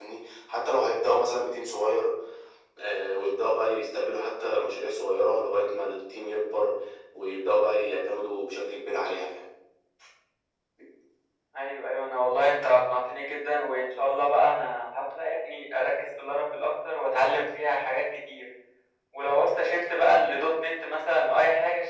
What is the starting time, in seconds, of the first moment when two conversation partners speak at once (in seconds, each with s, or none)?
none